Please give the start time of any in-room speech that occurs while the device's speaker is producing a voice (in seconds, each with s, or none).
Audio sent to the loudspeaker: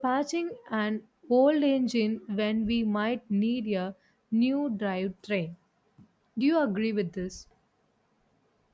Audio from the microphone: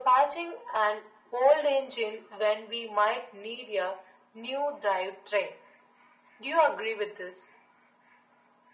none